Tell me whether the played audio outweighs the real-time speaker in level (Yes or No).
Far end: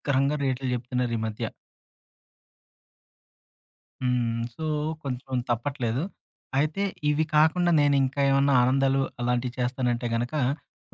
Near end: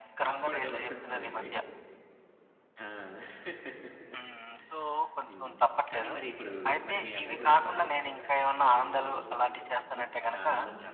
Yes